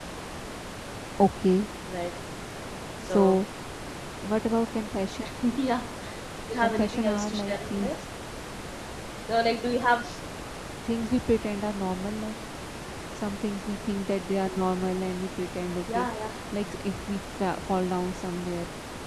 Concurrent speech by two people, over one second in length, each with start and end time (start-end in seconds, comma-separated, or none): 6.6-7.9